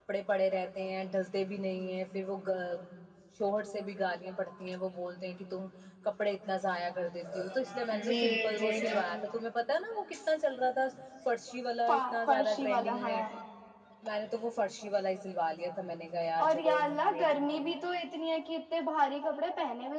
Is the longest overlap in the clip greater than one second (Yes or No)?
Yes